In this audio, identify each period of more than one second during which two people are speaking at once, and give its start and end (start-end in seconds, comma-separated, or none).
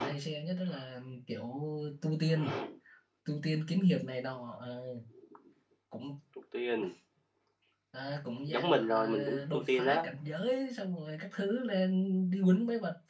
8.5-10.0